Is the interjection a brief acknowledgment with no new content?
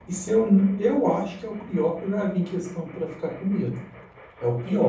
Yes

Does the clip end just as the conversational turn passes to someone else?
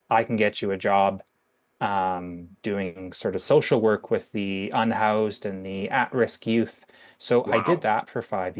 No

